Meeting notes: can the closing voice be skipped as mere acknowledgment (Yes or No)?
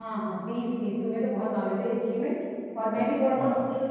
Yes